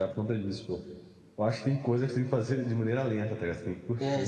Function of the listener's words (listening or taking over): taking over